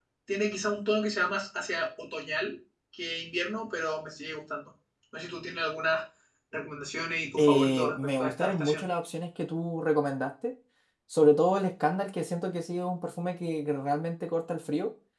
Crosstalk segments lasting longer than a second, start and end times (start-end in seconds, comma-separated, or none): 7.4-8.8